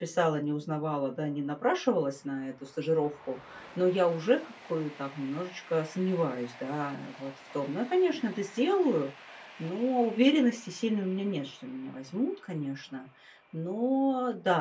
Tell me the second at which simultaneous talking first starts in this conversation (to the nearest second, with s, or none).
none